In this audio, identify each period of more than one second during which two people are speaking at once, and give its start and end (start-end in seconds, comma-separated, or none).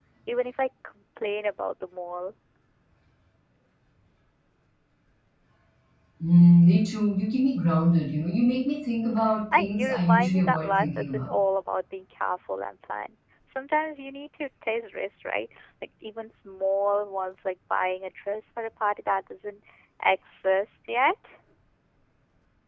9.6-11.3